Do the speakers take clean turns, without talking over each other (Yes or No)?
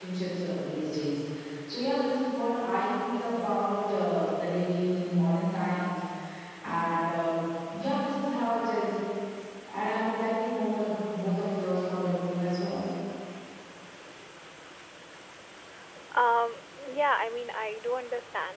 Yes